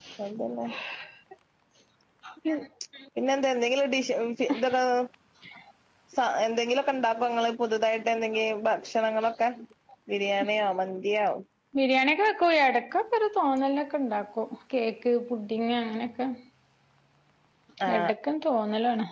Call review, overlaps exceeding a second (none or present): none